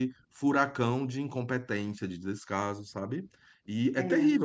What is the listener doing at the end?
listening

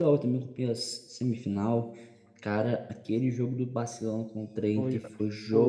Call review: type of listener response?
taking over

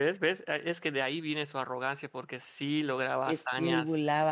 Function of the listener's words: taking over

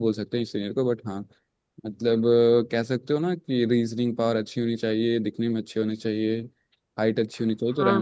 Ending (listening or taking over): taking over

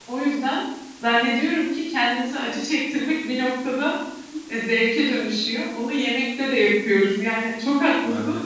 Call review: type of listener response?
listening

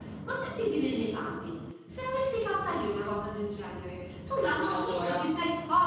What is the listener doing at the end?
listening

